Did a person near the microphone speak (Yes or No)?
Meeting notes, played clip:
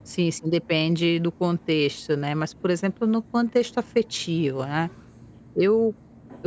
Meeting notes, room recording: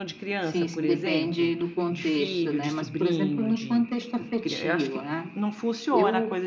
Yes